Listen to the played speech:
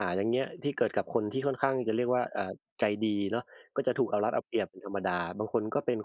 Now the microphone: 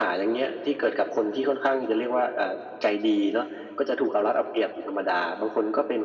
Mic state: echo only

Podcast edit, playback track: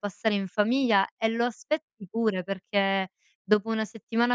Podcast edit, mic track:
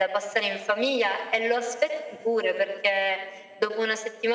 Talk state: echo only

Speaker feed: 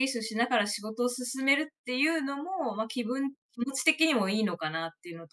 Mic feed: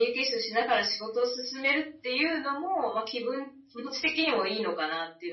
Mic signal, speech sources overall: echo only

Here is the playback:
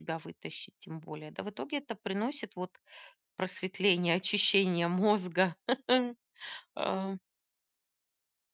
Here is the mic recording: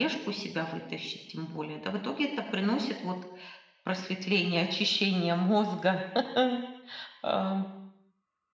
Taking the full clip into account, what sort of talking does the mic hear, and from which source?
echo only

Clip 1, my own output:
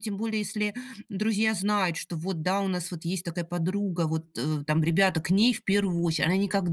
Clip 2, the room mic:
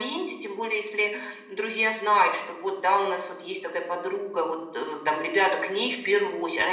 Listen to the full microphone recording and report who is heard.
echo only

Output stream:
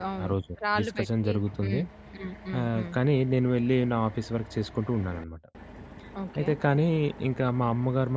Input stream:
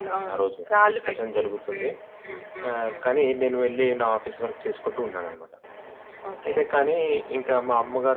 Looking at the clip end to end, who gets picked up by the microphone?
echo only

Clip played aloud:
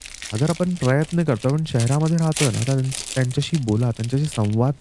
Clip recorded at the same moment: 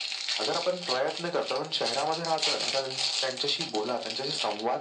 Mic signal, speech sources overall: echo only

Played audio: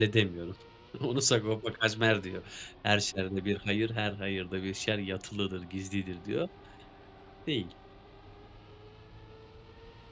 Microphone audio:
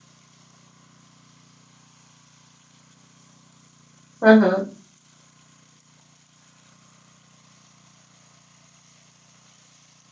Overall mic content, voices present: user only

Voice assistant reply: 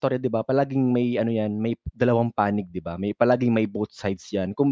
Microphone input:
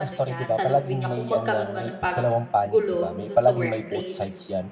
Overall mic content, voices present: both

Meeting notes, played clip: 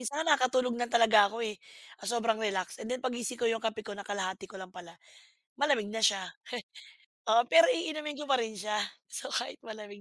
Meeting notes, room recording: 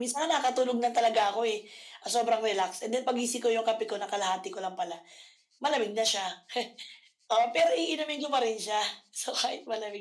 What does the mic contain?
echo only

